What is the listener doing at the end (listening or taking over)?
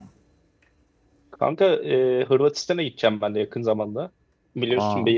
listening